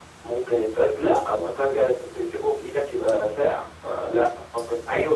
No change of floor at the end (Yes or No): No